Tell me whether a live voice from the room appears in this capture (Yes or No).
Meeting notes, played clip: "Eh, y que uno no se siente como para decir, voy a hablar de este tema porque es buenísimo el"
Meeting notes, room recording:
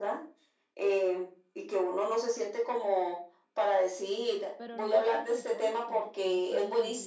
Yes